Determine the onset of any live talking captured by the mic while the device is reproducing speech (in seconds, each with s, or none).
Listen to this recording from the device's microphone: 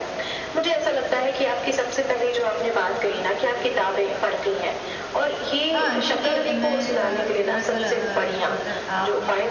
5.7 s